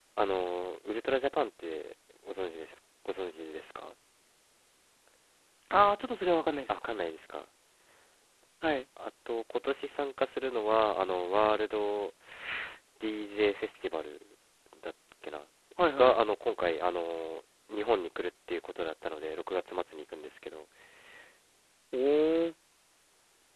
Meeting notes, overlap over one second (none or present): none